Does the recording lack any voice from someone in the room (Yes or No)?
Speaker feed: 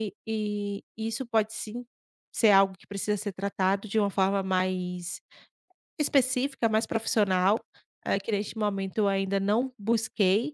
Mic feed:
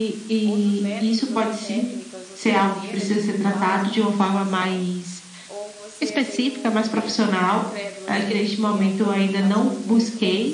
No